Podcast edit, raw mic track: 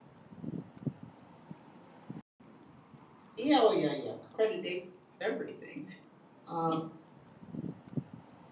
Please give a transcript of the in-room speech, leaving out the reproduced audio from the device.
yeah oh yeah yeah accreditation everything uh,

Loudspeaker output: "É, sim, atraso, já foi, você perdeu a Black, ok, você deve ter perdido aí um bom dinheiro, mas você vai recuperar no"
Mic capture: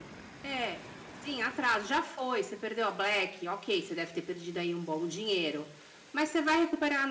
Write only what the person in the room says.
none

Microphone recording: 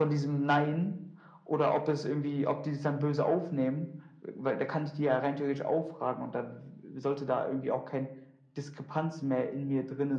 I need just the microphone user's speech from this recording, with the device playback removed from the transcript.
none

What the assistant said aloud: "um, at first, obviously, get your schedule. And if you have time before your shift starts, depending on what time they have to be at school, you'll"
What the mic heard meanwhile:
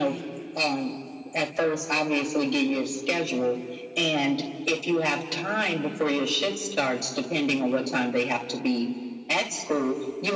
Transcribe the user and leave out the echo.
none

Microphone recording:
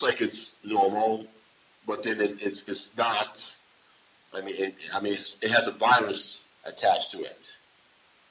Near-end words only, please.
none

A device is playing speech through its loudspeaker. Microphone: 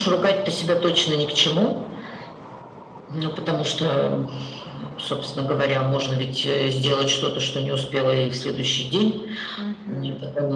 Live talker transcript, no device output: Мгм.

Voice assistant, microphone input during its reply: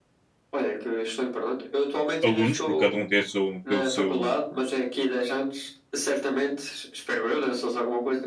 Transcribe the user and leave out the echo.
alunos, porque cada um tem, o seu, tem, o seu,

